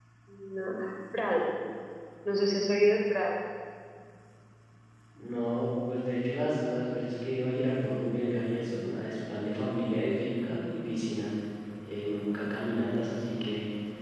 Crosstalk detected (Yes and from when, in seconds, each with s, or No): No